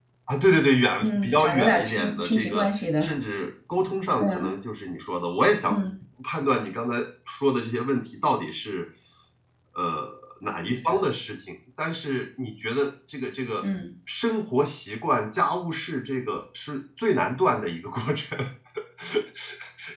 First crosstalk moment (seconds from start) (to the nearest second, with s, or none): 1 s